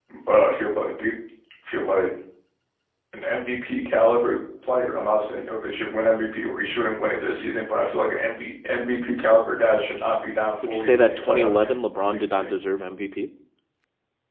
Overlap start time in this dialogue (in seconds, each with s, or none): 10.6 s